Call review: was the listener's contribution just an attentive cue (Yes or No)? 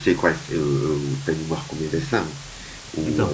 Yes